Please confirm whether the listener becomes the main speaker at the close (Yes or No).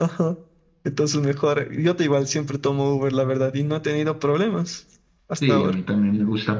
Yes